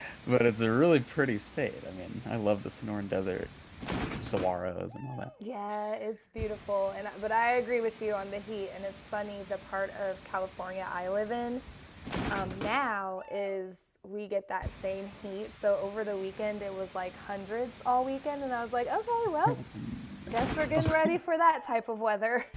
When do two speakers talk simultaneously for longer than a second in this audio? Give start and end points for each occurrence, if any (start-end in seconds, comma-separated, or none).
none